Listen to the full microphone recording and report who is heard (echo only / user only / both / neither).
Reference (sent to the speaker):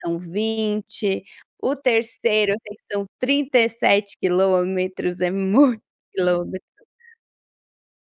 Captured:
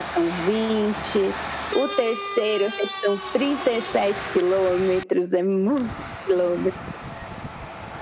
echo only